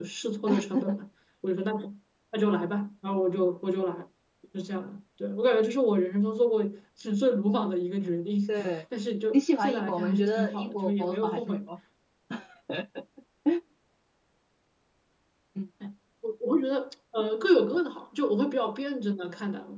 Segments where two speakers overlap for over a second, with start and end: 9.3-11.6

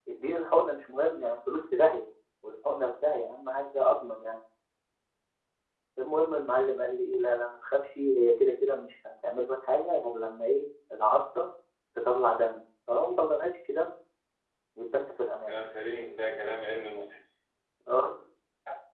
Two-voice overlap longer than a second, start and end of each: none

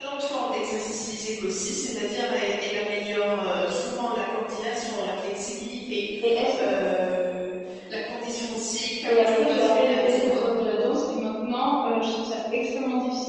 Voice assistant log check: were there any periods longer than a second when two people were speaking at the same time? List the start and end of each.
9.1-10.4

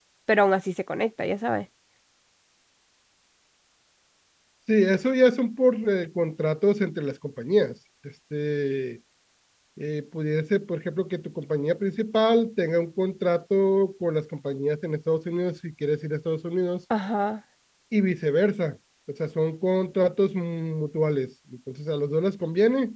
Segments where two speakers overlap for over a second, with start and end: none

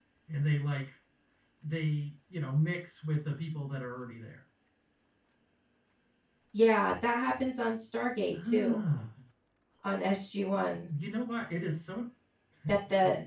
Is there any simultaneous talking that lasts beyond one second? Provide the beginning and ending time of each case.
none

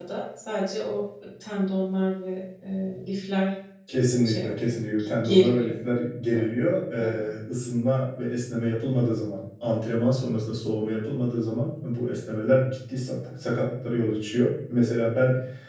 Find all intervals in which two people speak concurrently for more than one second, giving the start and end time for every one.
4.2-5.7

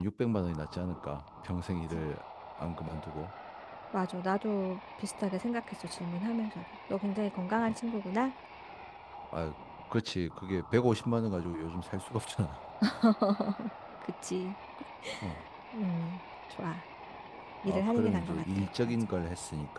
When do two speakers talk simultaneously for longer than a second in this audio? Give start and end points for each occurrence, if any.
17.7-18.9

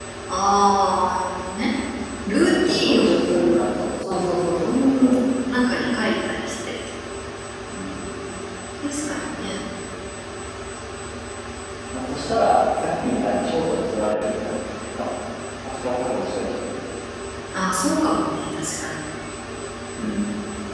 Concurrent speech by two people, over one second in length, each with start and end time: 2.4-3.6

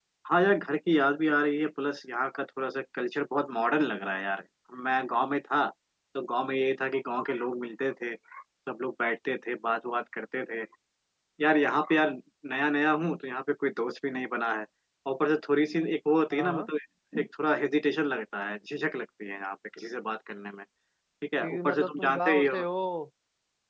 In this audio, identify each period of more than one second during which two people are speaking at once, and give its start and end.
21.4-22.6

